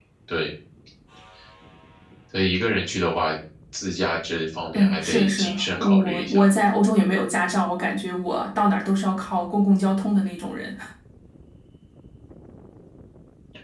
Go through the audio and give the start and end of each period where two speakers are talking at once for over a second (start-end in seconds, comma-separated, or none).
4.7-6.4